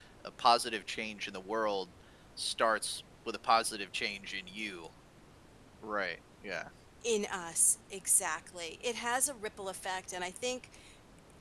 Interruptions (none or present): none